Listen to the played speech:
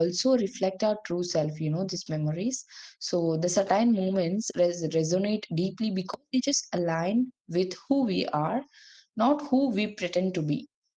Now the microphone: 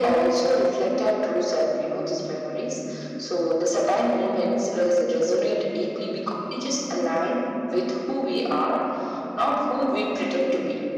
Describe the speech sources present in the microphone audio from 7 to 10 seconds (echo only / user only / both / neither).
echo only